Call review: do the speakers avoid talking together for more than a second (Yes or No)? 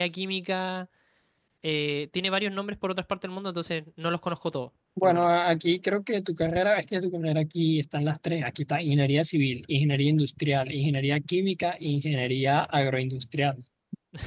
Yes